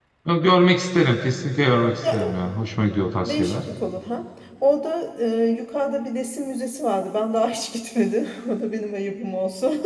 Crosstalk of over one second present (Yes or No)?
No